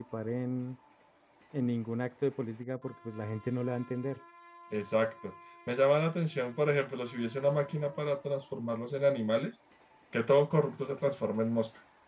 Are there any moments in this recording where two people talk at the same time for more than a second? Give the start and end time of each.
none

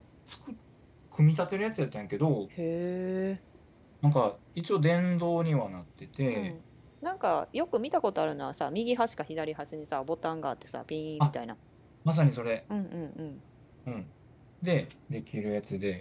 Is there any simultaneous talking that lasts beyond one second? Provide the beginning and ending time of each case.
none

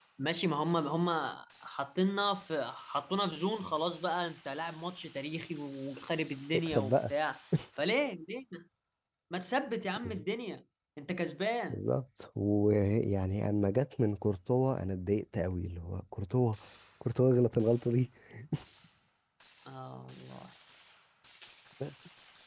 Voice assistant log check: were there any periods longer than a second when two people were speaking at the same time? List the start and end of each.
none

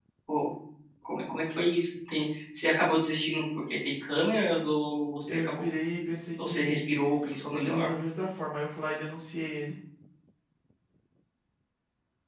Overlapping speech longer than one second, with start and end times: none

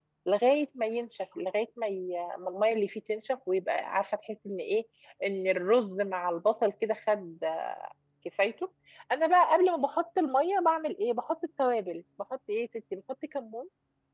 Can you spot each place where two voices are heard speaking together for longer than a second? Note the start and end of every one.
none

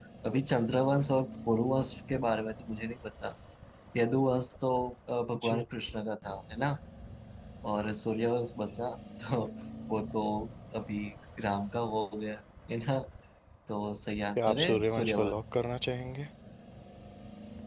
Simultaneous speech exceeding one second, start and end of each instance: 14.4-15.6

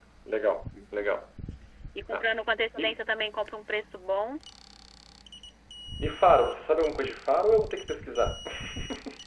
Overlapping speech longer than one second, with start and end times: none

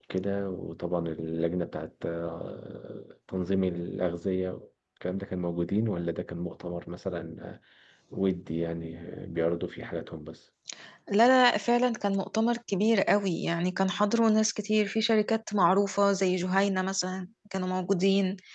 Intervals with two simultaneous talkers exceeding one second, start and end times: none

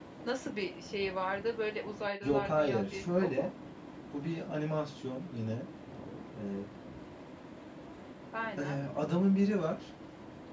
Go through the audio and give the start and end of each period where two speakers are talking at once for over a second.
2.2-3.5

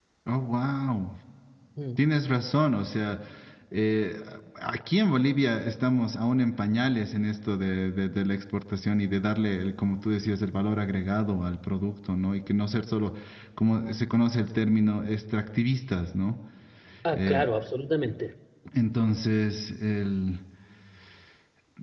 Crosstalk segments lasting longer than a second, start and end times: none

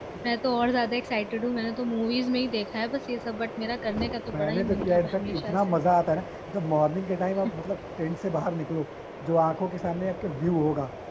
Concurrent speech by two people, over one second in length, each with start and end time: 4.3-5.8

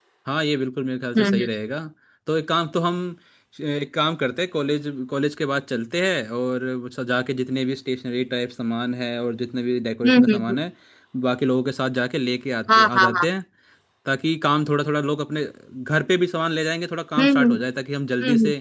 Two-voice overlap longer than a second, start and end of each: none

